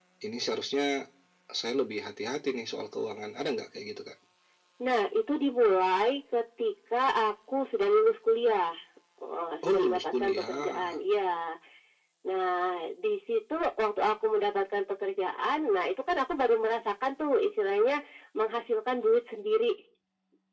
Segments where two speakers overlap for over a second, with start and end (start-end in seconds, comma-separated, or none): 9.7-10.9